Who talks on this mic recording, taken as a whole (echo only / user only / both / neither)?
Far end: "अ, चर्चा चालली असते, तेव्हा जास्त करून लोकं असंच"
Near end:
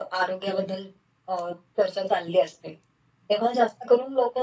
echo only